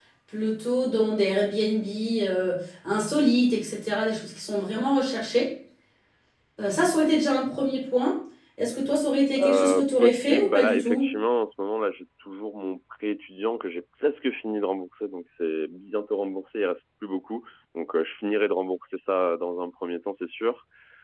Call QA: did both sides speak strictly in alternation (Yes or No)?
No